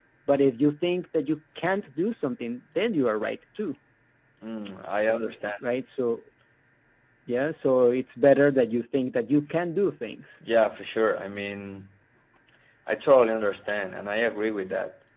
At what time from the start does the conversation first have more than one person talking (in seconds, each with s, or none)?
none